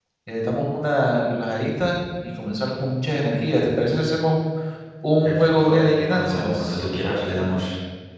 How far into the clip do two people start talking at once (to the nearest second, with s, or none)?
5 s